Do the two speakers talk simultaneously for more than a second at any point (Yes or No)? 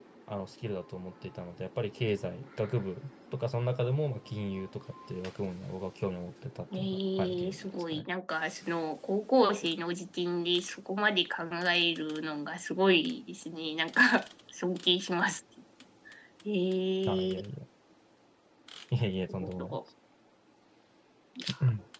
Yes